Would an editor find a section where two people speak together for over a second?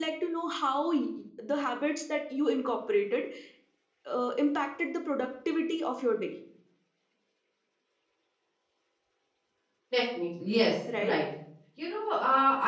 No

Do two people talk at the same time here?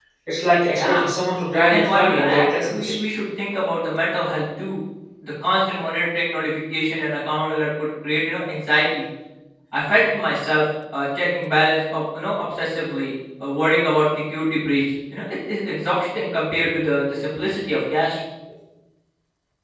Yes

